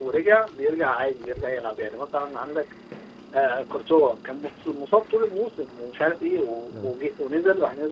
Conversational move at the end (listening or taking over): listening